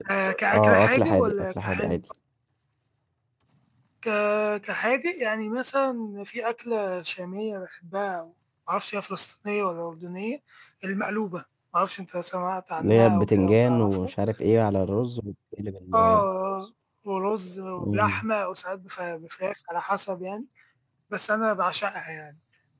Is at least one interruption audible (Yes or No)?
Yes